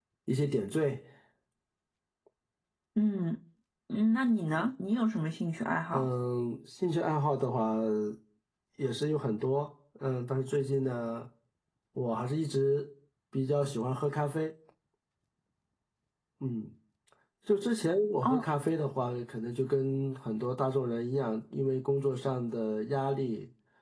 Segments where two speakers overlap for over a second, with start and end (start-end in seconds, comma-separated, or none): none